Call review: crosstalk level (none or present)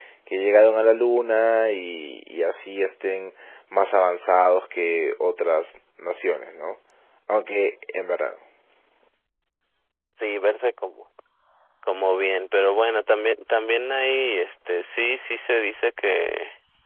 none